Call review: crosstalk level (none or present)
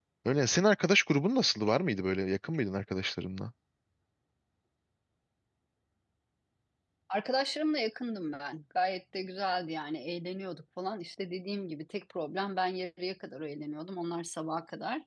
none